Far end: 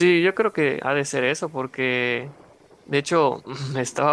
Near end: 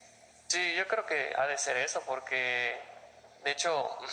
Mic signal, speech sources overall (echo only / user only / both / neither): echo only